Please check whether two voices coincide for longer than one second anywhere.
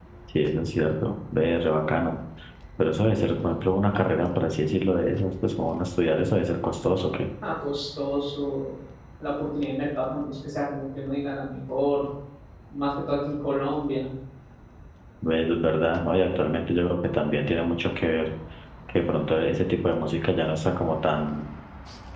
No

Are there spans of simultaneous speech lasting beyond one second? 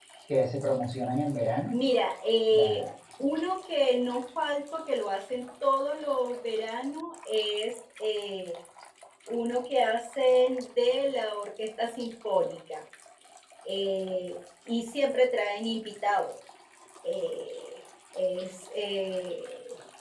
No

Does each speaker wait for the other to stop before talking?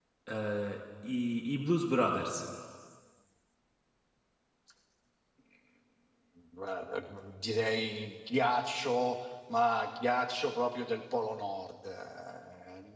Yes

